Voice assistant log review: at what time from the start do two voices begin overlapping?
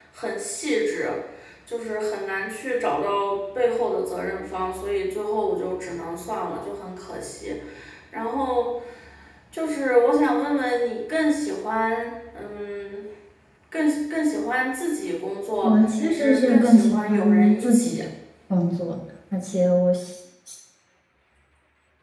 15.6 s

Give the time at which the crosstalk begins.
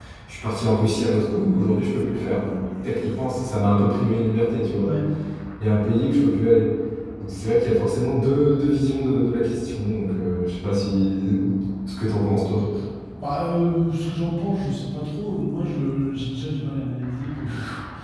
none

